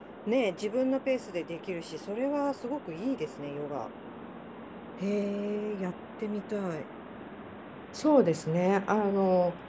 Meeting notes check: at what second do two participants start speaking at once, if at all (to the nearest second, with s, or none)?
none